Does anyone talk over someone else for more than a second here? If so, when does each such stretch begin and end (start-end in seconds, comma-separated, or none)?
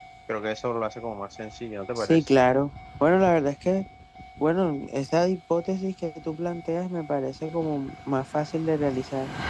none